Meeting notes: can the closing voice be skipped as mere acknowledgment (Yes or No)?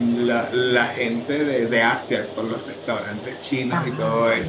Yes